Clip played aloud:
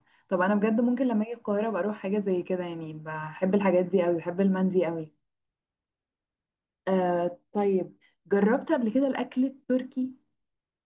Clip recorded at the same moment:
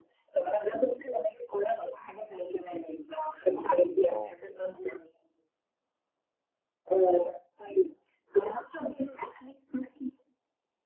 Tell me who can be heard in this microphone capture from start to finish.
both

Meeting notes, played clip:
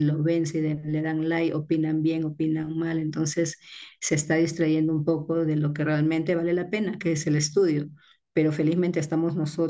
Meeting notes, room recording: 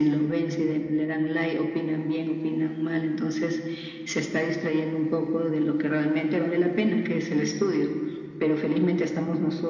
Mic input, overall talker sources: echo only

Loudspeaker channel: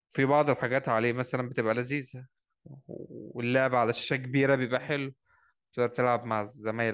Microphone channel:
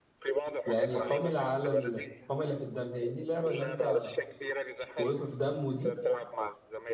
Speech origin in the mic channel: both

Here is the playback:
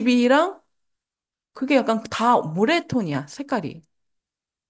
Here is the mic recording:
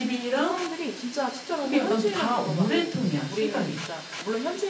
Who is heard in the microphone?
both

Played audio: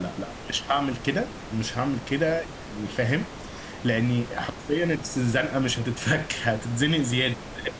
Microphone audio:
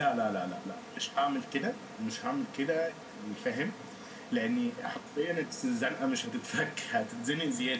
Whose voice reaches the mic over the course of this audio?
echo only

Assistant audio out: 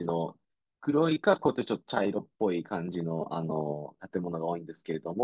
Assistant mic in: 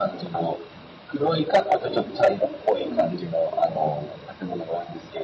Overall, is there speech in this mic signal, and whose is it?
both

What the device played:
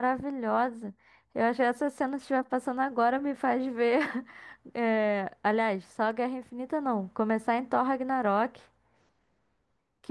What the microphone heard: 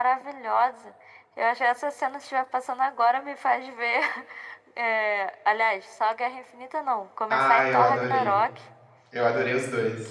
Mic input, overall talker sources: both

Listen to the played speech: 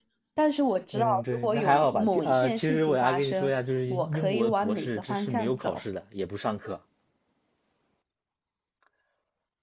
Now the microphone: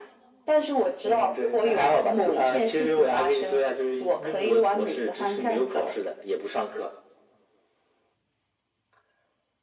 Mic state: echo only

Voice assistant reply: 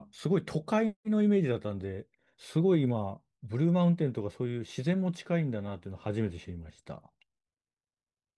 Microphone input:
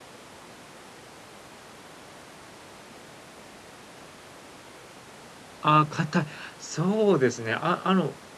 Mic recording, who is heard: user only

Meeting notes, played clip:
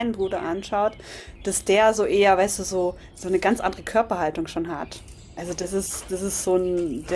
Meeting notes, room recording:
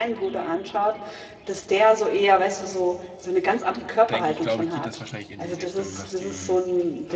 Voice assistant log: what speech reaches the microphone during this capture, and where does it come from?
both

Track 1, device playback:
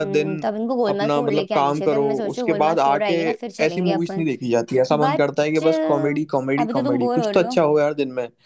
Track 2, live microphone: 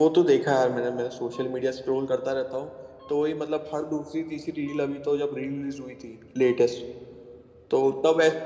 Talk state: user only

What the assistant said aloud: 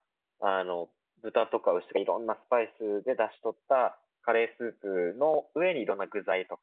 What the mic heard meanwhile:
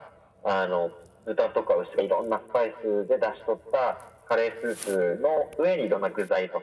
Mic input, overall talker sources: echo only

